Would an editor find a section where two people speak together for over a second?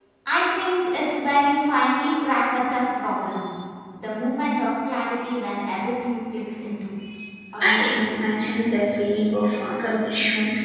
No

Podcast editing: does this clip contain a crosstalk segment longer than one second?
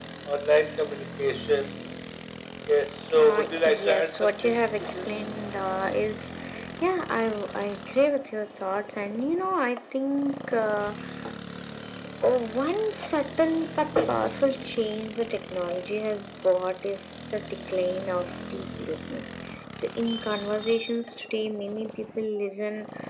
Yes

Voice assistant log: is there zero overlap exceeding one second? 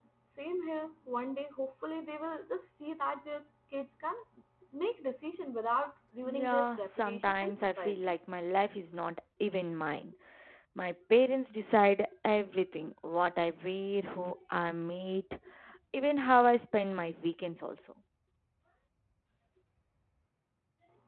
No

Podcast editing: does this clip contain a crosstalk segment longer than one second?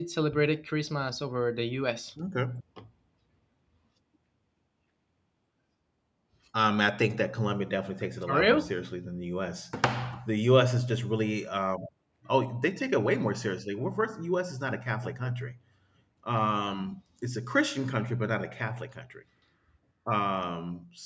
No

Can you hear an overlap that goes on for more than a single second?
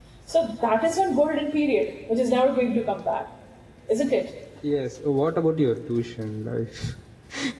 No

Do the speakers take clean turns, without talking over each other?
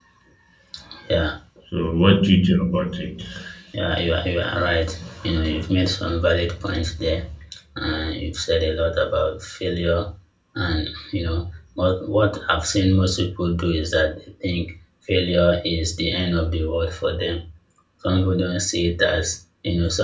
Yes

